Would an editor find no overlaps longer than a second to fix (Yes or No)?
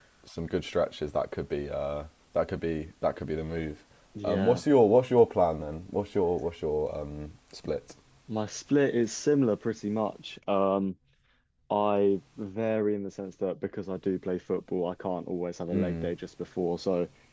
Yes